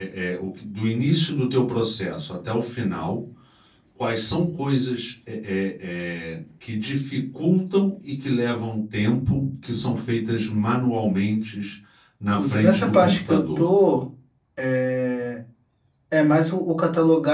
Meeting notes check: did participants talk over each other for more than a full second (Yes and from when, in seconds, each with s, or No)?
Yes, from 12.4 s